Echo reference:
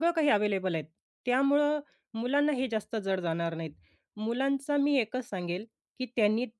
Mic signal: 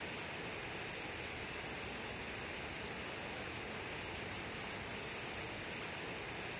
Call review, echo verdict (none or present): none